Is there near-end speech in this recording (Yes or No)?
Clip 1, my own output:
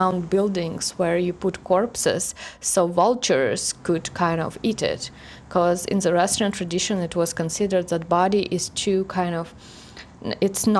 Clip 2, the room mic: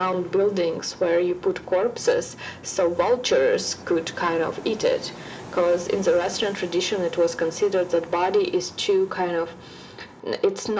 No